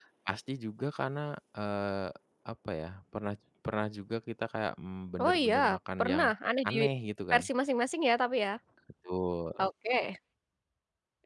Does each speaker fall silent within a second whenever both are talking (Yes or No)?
Yes